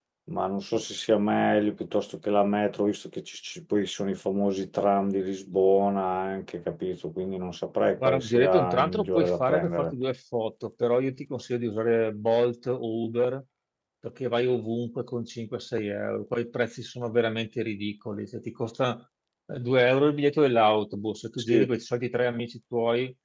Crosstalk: present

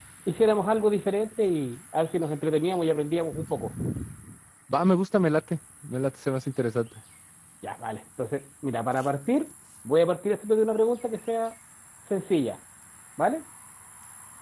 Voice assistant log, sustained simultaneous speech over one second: none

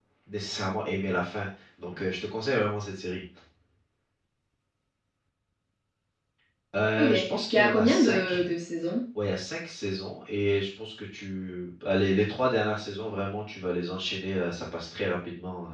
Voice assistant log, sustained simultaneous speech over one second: present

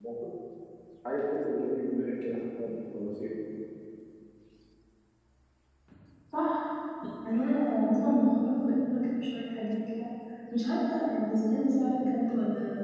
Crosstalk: none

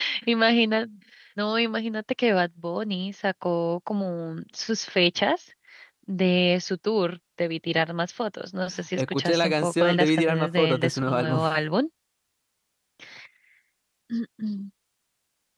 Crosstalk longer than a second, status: present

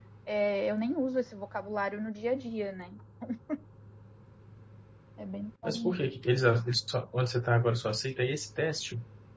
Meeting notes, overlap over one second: none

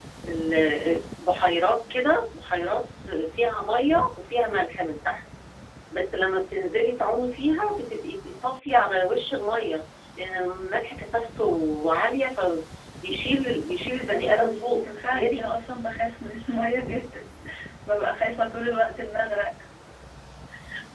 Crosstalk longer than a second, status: present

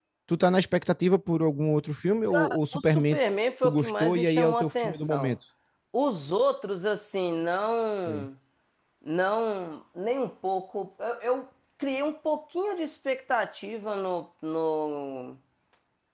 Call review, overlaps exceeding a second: present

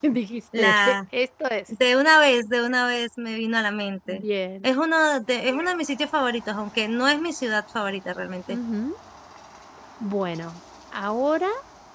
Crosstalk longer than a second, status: none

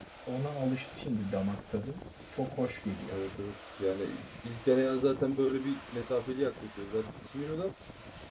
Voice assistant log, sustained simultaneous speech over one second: none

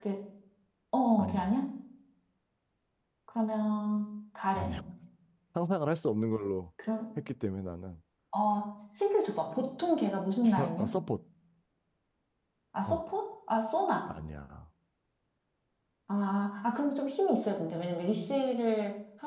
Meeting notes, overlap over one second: none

